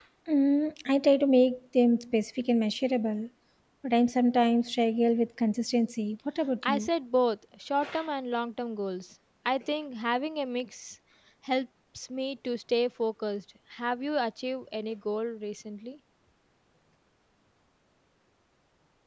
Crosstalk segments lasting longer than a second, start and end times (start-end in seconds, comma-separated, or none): none